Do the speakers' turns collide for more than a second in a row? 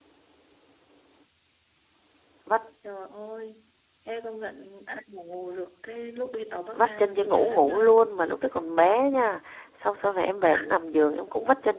Yes, from 6.7 s

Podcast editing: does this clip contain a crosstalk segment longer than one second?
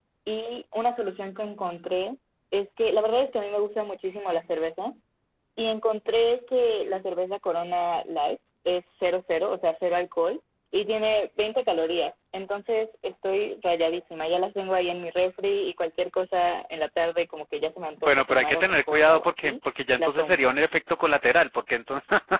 Yes, from 18.0 s

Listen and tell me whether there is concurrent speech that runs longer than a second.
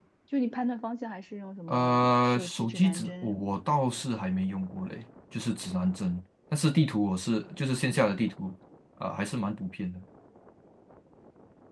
Yes, from 1.7 s

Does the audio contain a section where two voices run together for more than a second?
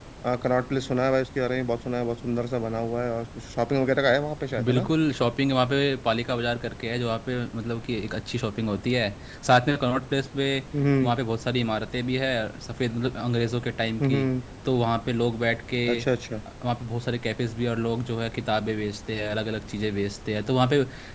No

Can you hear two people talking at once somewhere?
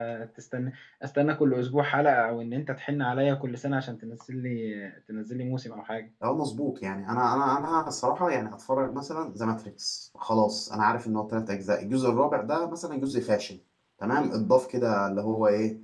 No

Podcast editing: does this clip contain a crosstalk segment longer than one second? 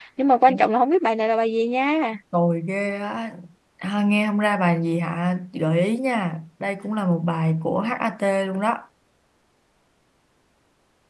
No

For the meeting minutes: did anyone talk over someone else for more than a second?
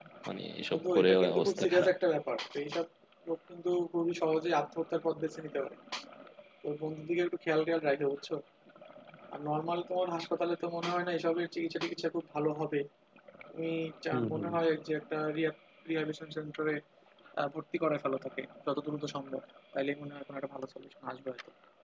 Yes, from 0.7 s

